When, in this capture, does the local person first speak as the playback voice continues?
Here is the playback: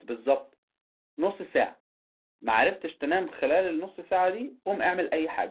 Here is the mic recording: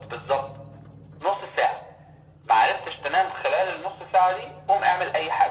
none

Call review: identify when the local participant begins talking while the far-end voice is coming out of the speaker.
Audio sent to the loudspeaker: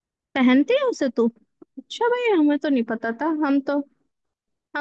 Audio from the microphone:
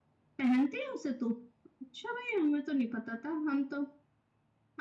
none

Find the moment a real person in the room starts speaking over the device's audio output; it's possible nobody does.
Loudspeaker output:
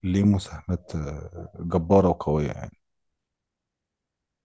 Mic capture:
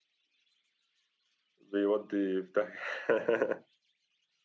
2 s

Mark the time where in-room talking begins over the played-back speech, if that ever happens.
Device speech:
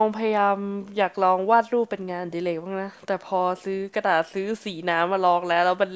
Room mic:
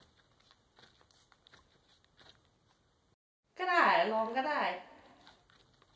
4 s

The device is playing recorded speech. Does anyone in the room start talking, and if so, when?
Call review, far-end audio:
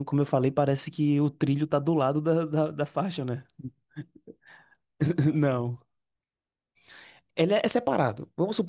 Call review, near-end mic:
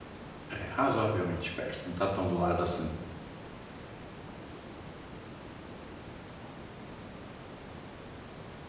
0 s

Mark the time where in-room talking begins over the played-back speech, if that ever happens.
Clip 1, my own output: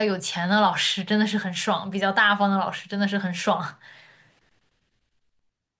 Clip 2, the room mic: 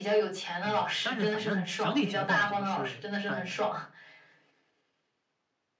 1 s

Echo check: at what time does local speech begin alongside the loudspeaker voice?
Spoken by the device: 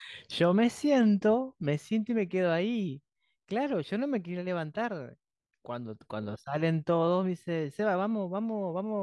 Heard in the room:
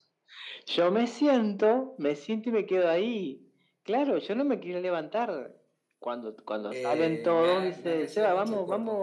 7 s

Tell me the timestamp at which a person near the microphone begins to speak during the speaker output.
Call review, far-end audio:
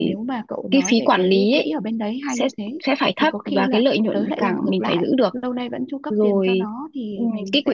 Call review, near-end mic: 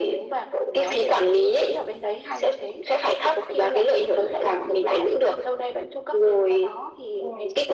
none

